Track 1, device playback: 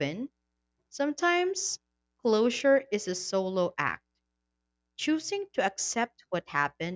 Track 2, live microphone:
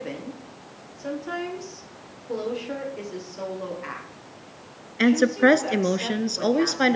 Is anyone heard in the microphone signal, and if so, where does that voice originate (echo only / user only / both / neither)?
both